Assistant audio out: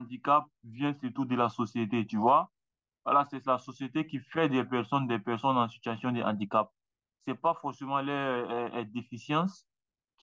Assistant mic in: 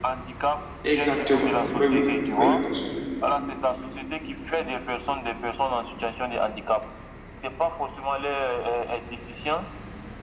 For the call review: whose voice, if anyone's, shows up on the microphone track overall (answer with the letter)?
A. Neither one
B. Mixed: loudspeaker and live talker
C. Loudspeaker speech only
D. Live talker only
B